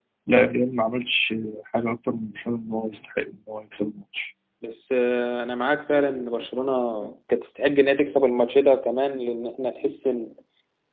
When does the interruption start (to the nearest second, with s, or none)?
none